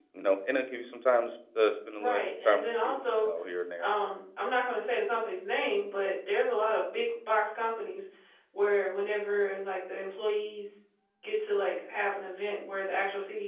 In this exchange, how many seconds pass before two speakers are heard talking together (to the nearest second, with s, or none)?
2 s